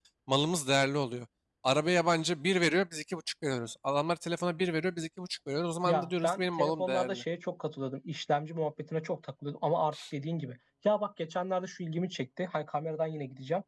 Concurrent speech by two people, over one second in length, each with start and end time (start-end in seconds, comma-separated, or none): 5.8-7.2